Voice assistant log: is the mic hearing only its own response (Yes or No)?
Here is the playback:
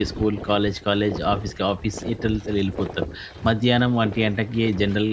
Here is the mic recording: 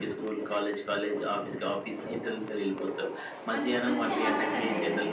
No